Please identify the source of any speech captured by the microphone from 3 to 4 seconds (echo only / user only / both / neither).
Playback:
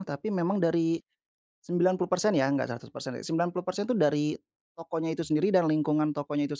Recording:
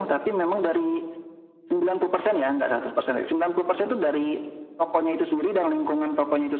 echo only